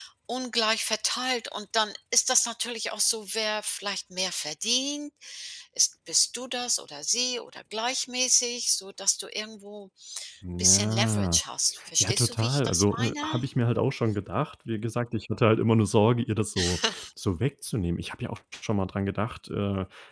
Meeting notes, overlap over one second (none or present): present